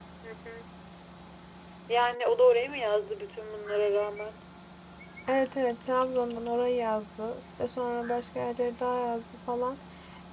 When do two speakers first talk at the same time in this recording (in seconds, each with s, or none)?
none